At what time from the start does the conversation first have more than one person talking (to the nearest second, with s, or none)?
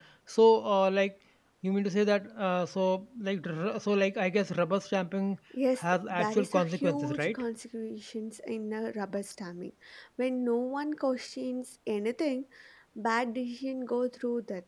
6 s